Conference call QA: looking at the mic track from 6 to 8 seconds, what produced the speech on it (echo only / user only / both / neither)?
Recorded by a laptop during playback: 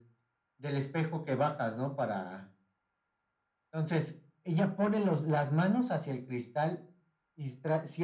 echo only